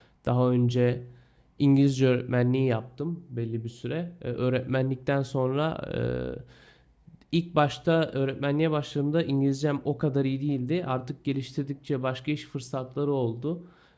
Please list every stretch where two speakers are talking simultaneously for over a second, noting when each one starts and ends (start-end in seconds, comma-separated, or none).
none